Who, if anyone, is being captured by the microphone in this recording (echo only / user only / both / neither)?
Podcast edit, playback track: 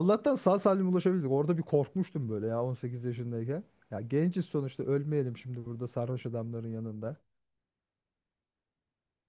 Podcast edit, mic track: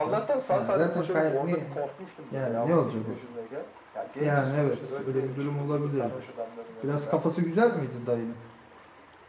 both